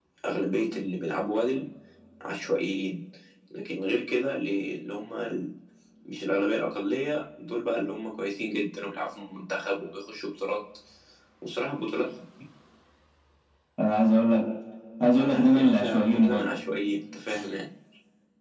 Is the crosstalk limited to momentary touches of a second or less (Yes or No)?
No